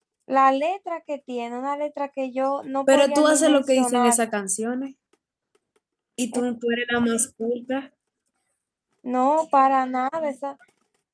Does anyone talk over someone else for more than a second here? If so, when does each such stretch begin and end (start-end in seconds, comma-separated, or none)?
2.9-4.2